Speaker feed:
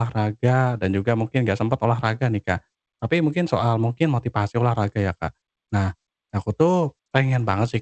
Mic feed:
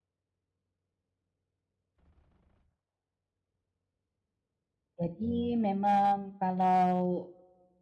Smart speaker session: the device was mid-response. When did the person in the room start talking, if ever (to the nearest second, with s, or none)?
5 s